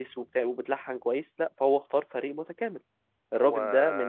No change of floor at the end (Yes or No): Yes